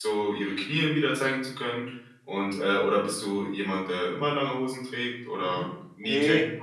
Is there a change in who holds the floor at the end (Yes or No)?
Yes